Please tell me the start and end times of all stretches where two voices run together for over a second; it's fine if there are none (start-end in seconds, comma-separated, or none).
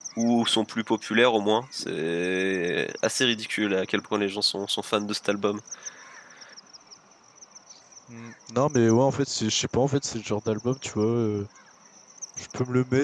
none